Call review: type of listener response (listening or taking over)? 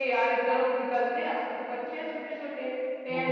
listening